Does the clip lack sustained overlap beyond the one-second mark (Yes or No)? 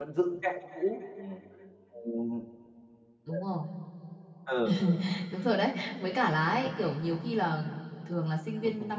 Yes